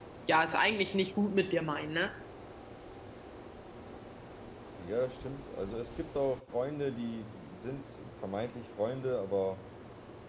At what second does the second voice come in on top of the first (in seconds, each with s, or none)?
none